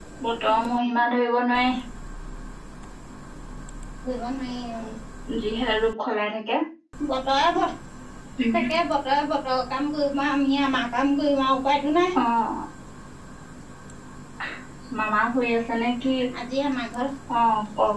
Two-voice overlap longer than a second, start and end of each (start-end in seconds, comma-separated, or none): none